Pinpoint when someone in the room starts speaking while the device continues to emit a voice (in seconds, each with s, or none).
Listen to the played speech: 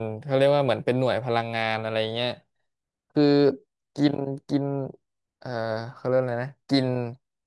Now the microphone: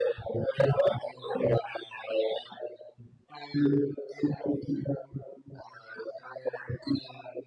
none